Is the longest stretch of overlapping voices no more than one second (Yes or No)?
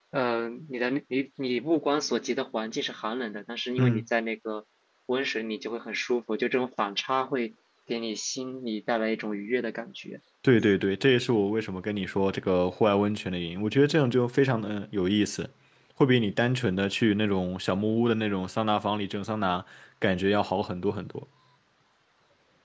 Yes